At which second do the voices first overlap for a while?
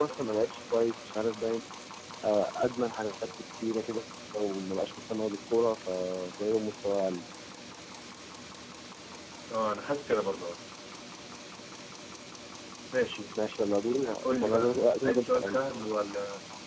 14.4 s

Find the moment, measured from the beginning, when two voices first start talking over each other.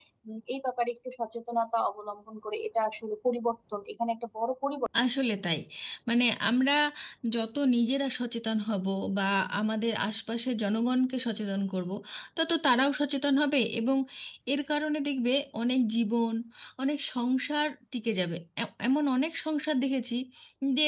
none

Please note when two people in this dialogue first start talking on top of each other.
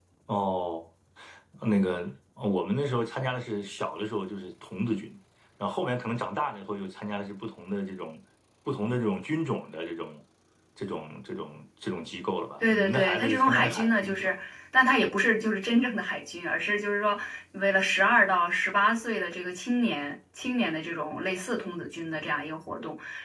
12.6 s

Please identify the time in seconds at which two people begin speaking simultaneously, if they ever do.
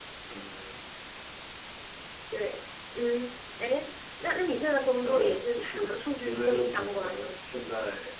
5.0 s

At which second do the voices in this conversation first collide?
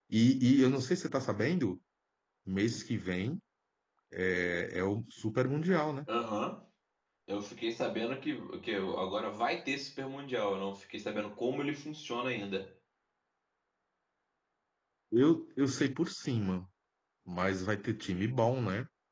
none

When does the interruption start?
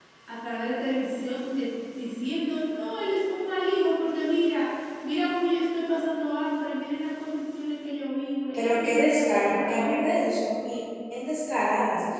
8.5 s

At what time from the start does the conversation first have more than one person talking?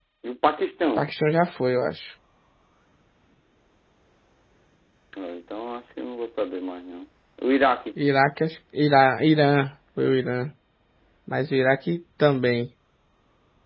none

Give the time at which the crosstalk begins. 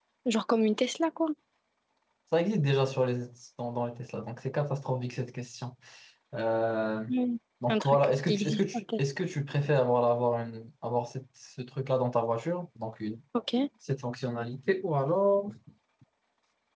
7.7 s

